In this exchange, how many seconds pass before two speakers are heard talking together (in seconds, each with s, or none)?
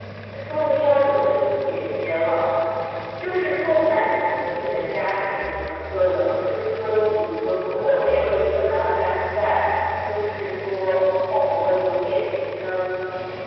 none